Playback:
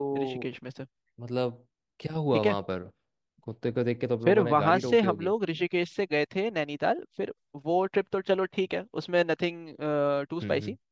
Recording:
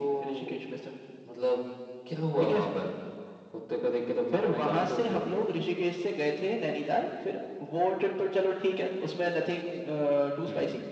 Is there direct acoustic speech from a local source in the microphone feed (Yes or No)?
No